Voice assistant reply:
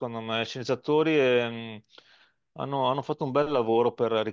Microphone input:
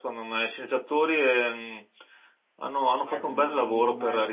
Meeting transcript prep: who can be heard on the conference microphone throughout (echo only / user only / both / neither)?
both